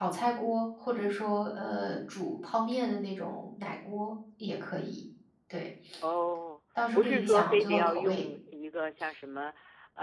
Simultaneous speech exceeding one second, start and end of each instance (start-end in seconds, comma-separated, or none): 6.9-8.2